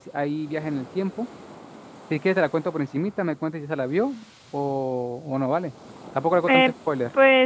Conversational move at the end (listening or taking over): taking over